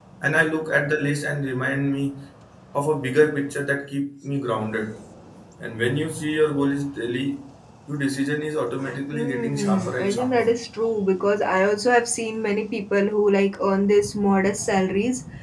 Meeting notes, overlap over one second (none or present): present